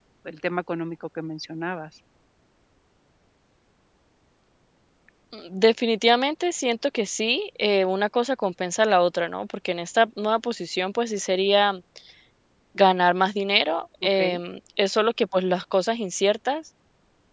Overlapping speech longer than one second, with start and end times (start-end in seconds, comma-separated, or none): none